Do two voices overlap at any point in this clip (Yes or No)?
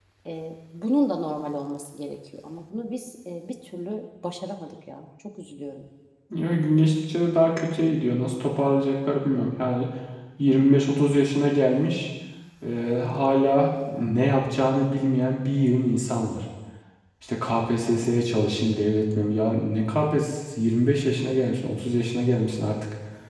No